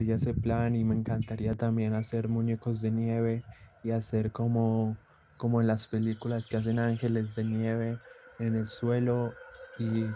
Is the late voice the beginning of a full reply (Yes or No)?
No